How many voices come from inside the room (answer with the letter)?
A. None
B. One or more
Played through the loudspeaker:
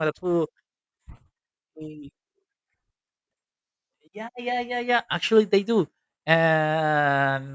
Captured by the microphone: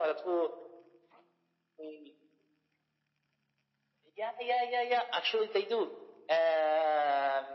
A